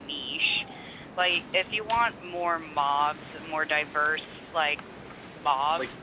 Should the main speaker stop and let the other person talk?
No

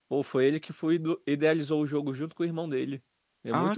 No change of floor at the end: No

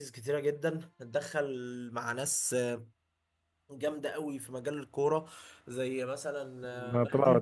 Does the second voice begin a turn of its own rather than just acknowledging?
Yes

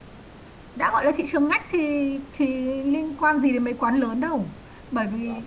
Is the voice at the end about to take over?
No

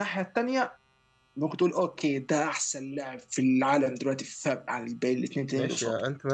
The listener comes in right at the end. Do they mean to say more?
Yes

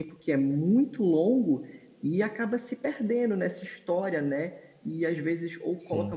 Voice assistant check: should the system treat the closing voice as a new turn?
No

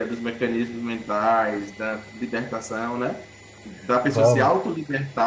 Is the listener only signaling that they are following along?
Yes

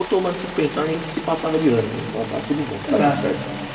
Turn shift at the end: Yes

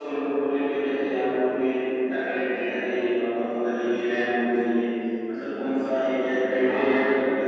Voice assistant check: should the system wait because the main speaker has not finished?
Yes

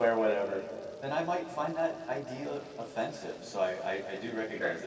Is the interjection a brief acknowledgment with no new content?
Yes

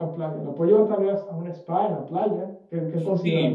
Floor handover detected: Yes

